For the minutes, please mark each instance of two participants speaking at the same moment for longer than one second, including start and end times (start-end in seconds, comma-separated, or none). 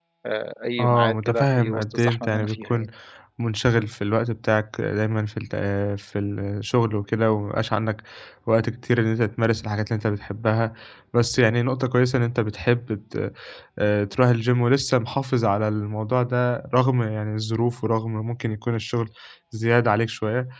0.8-2.9